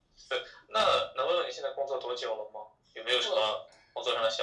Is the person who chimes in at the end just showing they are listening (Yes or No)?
Yes